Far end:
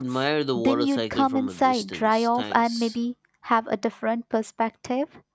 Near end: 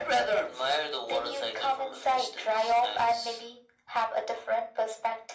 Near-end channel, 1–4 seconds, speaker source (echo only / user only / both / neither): echo only